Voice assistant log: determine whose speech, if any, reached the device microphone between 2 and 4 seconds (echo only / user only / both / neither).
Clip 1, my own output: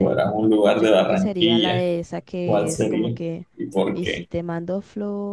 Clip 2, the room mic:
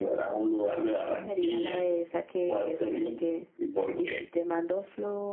echo only